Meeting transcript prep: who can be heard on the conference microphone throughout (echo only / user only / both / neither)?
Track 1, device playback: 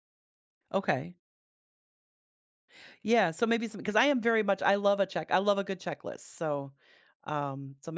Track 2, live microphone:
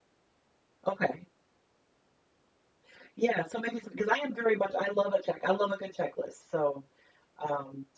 echo only